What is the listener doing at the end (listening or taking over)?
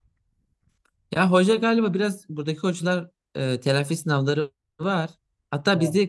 listening